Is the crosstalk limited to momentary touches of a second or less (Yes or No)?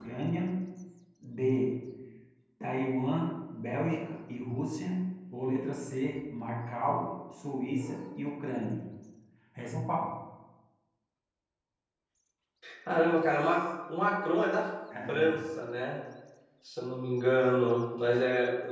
Yes